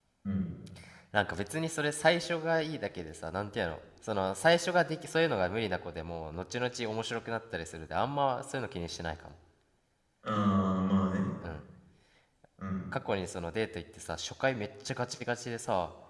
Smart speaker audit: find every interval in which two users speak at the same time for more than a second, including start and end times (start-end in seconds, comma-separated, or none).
none